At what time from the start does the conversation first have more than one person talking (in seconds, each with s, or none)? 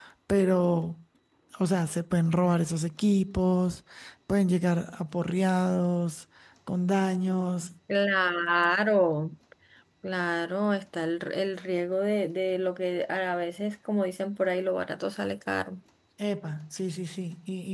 none